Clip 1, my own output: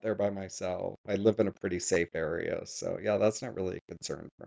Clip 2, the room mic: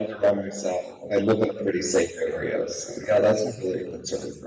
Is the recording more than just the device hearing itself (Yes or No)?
No